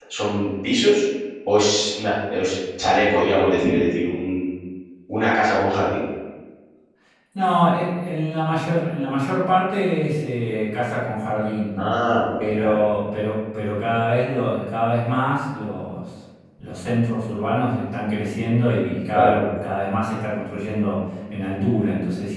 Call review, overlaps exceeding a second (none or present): none